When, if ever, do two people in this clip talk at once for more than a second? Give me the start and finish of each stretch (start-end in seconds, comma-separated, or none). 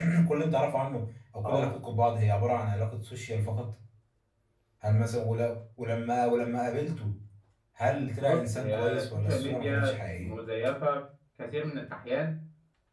8.2-10.4